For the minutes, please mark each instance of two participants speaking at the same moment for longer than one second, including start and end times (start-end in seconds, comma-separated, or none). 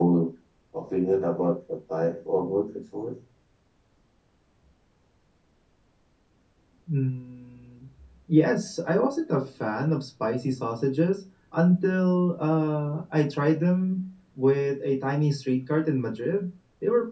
none